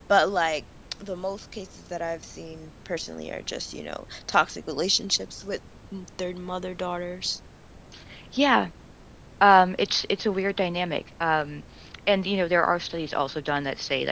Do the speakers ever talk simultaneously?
No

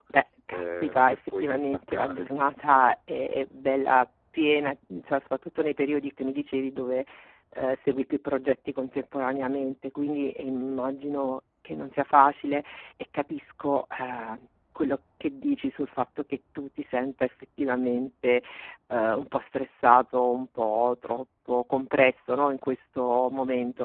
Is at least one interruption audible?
Yes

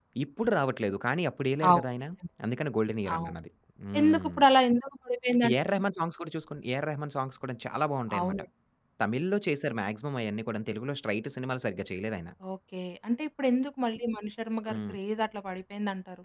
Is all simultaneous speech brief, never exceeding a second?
Yes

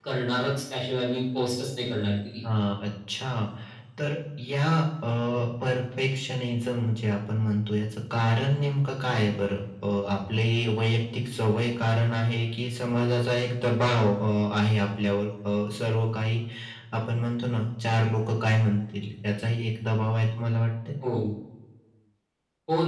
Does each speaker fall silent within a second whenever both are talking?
Yes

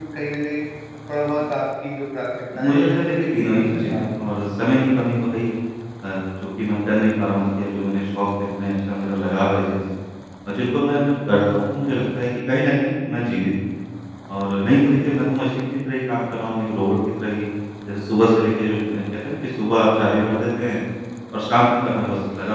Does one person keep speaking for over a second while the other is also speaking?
Yes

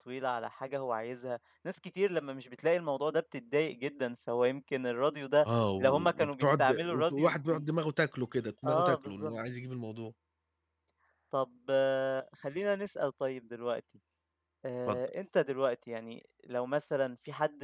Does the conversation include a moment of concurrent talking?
Yes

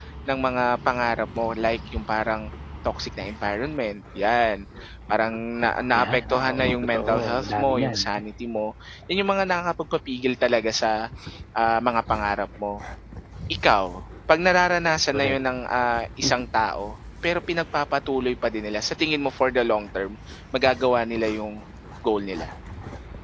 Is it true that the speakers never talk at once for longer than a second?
No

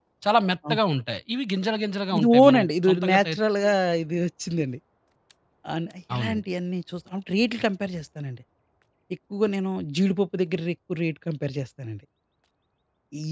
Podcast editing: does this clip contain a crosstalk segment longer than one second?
Yes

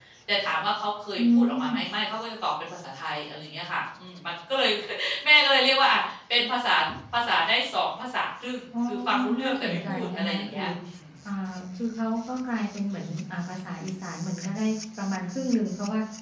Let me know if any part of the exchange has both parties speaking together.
Yes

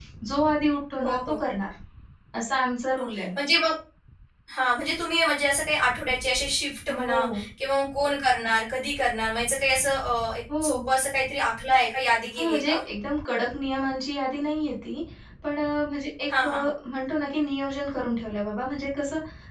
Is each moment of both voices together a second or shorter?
Yes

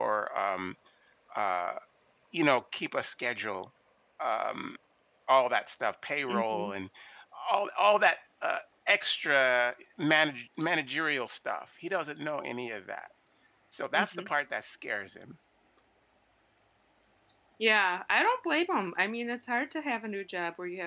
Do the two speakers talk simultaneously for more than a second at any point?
No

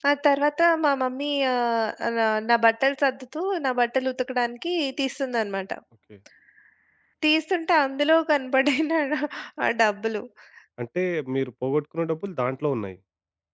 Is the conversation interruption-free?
Yes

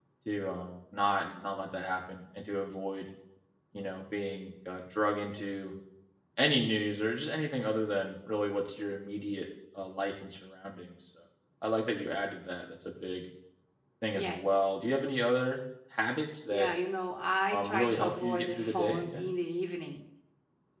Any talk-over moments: Yes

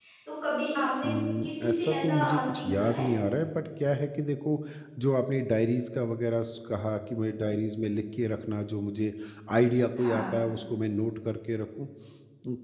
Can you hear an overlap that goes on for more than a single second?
Yes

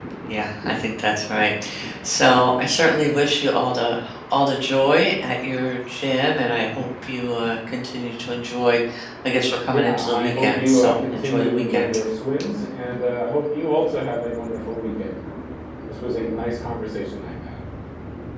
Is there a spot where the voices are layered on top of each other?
Yes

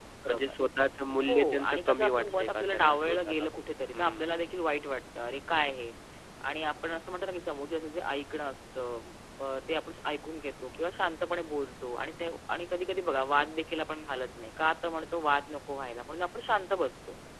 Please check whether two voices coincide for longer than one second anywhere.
Yes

